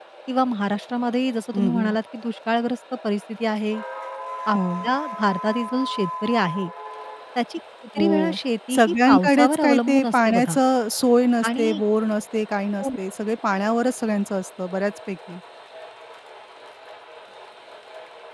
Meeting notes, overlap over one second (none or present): present